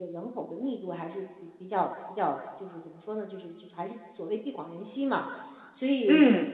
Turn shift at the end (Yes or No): No